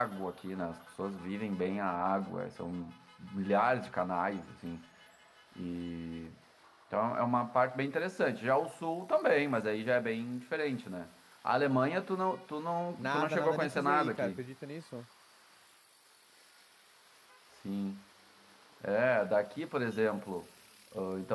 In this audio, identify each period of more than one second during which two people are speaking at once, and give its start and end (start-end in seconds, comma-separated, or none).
13.0-14.4